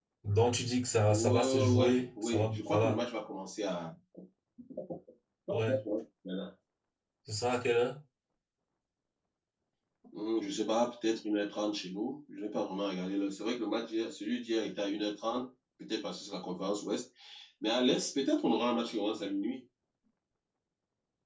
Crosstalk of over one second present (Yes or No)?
Yes